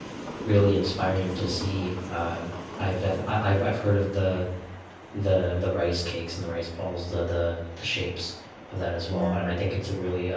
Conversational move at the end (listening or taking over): listening